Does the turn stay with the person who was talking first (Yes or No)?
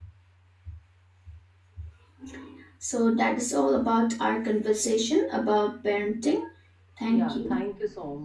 No